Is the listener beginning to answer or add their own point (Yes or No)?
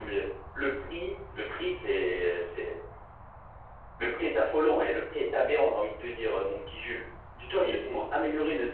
No